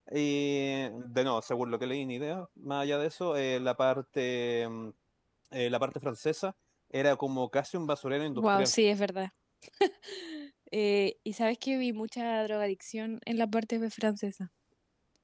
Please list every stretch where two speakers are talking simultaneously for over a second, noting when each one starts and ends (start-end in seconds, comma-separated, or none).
none